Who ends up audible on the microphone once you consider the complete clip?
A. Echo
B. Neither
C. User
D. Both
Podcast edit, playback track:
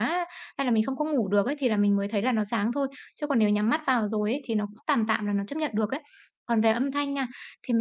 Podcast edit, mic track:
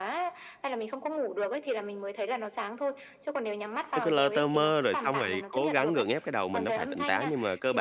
D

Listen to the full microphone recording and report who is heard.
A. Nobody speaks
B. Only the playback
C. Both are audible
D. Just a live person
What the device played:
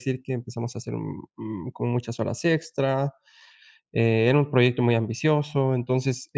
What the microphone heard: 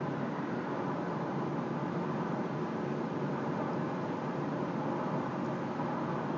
A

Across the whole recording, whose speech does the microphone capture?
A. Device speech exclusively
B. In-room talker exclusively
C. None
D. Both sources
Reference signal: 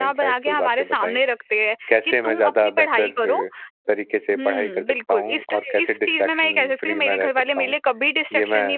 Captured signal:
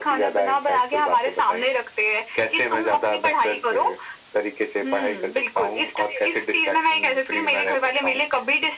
A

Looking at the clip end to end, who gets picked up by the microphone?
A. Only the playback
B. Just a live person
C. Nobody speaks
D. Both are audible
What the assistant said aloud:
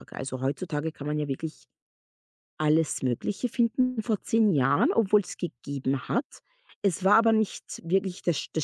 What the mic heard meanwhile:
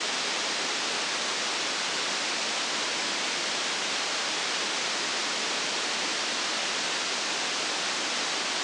C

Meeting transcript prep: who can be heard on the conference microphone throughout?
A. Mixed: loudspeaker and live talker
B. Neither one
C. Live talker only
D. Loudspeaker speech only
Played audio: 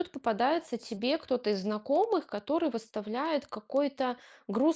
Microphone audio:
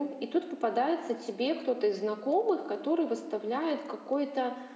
D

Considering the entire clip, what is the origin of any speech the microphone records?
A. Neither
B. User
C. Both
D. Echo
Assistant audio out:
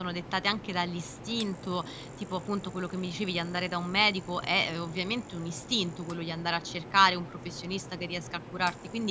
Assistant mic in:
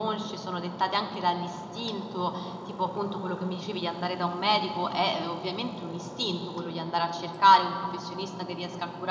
D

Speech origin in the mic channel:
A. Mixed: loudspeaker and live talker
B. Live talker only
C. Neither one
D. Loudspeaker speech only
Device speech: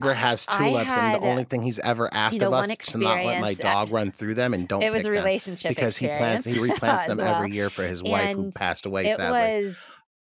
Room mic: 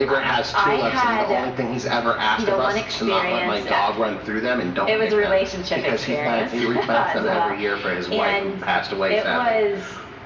D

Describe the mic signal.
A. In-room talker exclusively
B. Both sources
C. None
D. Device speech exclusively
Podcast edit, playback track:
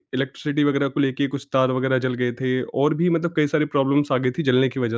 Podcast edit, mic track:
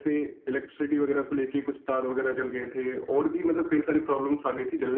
D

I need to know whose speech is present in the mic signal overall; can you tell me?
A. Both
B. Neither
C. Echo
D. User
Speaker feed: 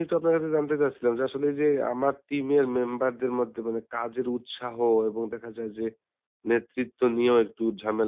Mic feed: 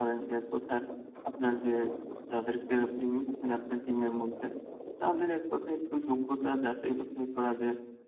D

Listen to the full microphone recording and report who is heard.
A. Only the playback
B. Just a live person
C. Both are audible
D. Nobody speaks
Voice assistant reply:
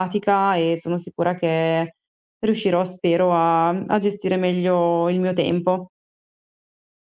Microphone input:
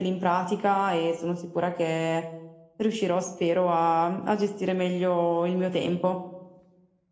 A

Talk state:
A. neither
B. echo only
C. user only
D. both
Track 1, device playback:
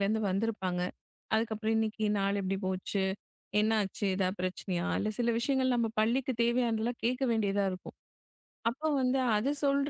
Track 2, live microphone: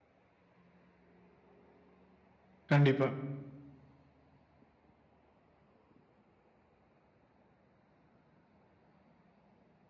C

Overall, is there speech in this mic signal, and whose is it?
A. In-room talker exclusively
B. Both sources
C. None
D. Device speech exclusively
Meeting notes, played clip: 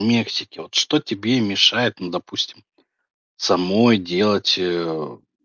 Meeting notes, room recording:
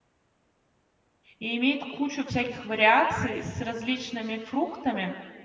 A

